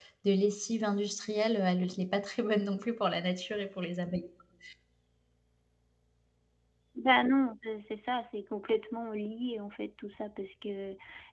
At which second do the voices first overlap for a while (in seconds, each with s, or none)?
none